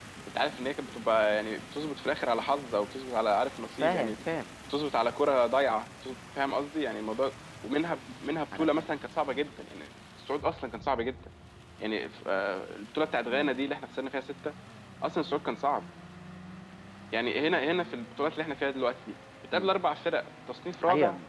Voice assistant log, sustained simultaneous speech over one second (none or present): none